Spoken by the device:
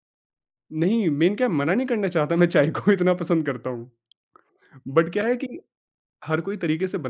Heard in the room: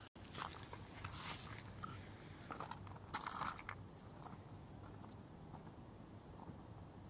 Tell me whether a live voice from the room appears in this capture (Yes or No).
No